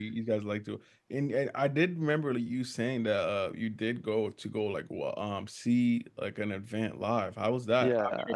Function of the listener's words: taking over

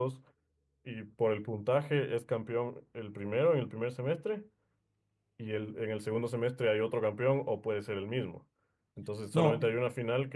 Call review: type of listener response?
listening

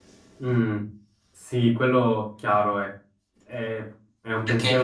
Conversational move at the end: taking over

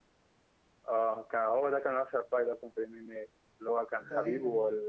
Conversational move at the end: listening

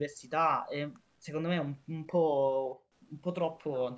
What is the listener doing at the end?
taking over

